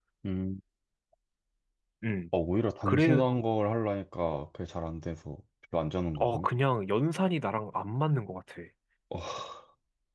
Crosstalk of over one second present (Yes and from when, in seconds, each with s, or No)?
No